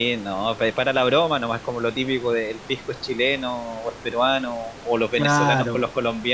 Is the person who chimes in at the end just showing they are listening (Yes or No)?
Yes